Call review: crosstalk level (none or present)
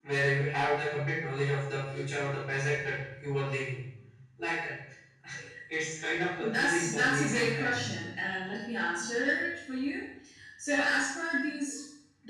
present